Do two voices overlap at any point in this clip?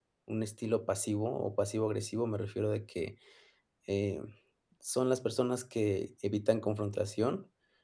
No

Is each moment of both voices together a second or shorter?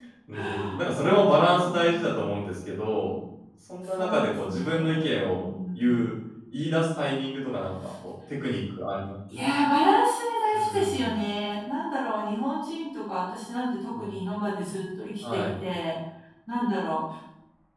No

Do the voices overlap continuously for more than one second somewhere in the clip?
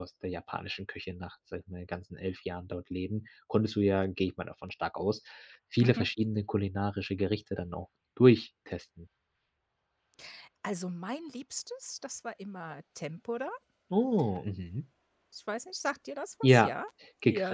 No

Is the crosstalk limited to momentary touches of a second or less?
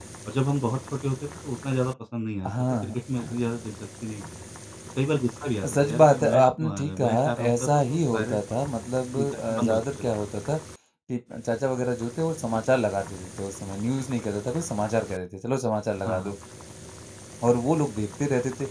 No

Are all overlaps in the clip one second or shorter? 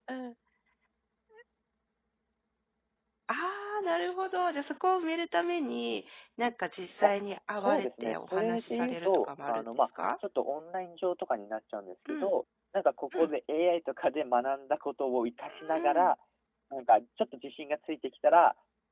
No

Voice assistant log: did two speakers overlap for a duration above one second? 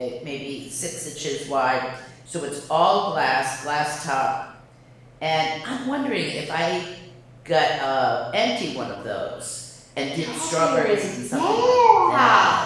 Yes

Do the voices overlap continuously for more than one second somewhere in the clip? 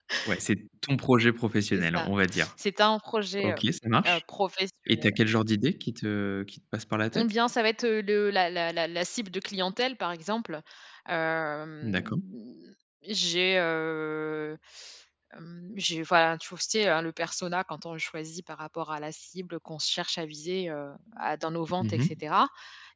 No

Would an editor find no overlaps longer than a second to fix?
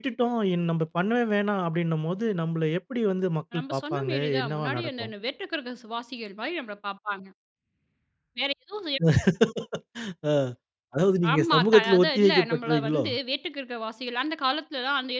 No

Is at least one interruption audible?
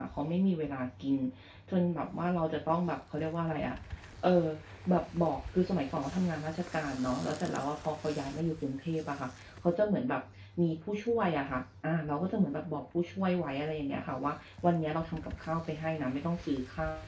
No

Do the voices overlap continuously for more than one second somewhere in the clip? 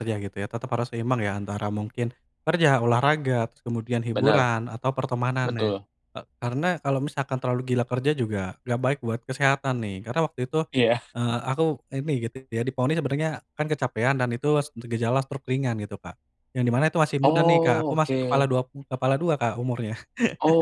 Yes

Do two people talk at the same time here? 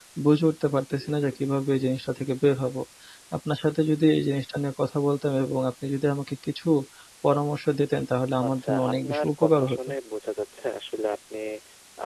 Yes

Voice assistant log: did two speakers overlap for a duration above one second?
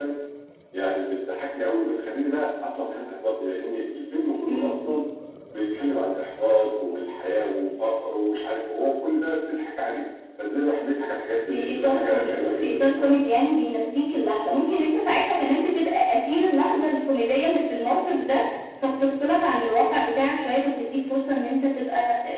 Yes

